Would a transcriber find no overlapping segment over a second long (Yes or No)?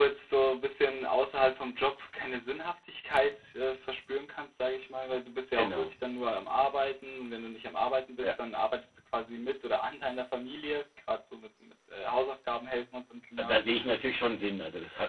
Yes